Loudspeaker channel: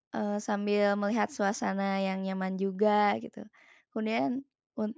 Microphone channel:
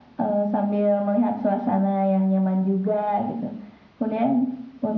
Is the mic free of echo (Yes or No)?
No